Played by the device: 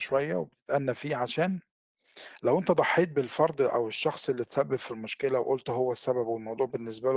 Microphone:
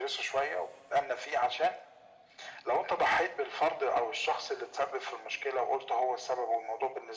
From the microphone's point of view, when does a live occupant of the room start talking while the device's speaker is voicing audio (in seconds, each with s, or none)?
none